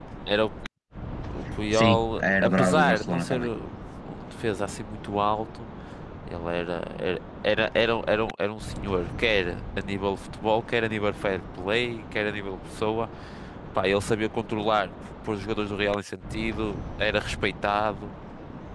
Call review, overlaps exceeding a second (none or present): present